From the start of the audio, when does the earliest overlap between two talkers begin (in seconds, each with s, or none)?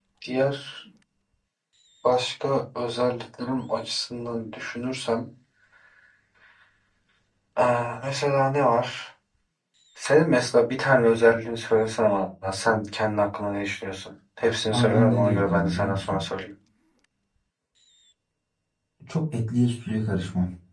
14.7 s